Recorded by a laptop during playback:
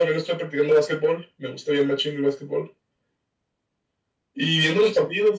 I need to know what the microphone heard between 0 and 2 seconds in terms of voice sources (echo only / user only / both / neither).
echo only